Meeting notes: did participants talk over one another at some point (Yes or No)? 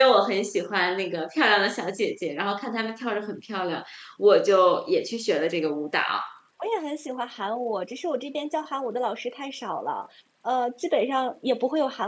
No